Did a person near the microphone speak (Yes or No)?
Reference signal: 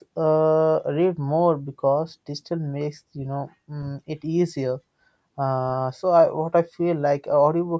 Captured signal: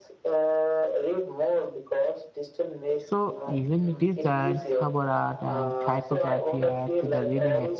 Yes